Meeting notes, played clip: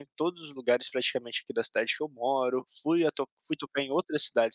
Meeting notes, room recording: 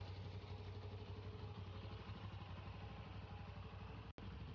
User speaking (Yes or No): No